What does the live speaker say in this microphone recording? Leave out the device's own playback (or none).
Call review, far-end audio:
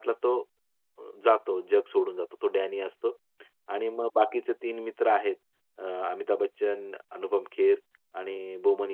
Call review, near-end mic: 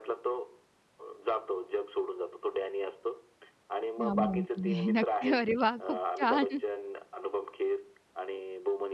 नामुमकीन है नक्की अरे वाह खूप छान